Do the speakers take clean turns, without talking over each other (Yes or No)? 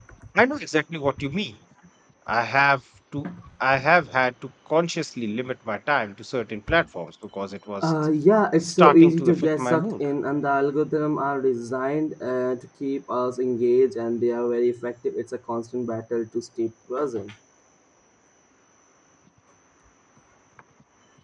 No